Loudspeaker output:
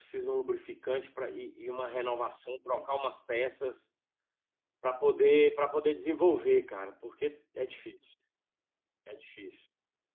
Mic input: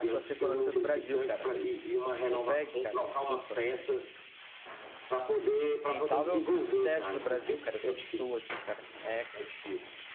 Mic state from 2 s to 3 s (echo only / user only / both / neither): both